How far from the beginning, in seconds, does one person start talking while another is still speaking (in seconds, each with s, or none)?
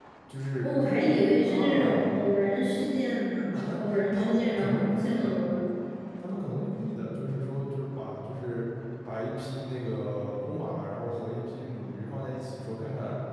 0.6 s